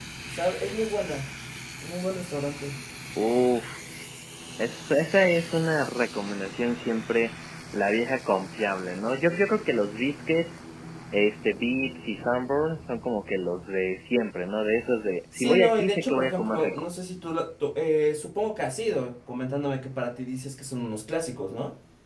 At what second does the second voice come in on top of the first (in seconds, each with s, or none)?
15.3 s